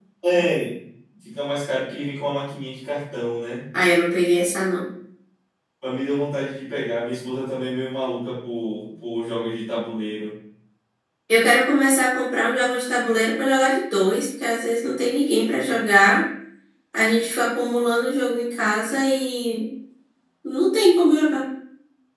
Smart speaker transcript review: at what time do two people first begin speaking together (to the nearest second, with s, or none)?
none